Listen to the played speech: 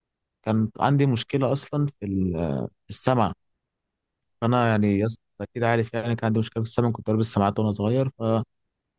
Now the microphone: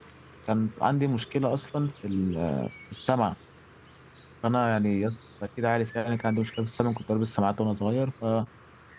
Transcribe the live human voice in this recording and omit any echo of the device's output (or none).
none